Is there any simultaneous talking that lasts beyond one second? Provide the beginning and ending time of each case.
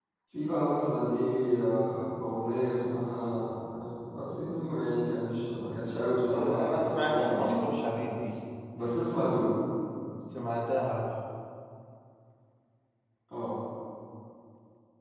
6.3-7.6

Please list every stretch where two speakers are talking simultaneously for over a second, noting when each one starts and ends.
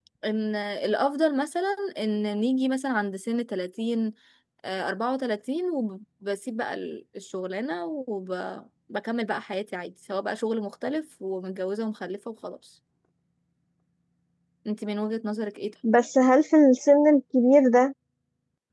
none

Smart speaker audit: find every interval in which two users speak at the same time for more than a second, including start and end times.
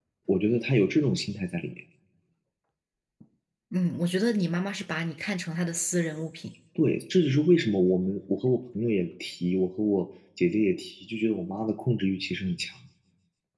none

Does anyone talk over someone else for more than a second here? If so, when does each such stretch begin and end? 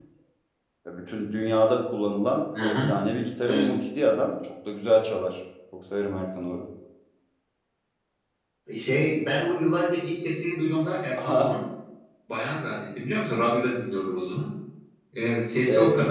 none

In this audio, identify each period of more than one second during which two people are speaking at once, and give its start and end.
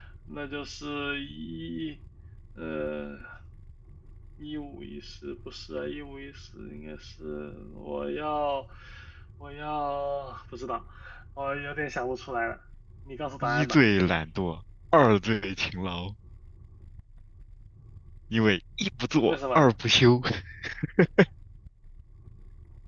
none

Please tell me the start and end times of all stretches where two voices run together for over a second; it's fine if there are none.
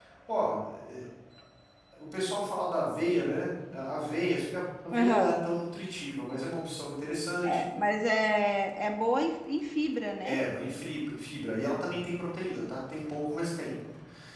none

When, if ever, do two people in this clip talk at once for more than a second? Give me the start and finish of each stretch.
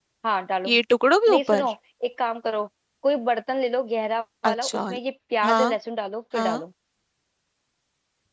none

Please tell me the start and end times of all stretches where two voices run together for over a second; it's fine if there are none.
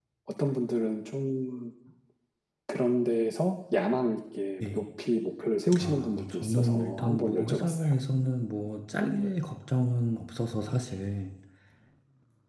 5.8-7.9

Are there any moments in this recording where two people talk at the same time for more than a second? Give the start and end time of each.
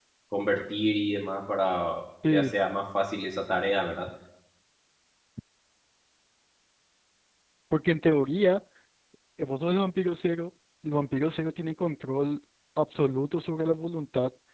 none

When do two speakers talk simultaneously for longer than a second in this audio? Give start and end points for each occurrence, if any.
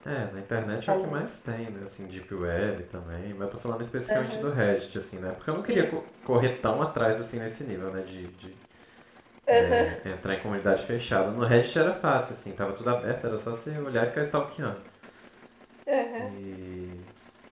none

